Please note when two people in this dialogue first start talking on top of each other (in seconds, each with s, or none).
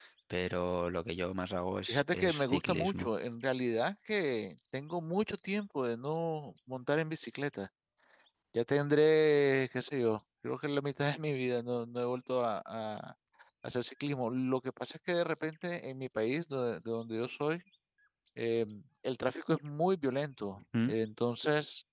1.9 s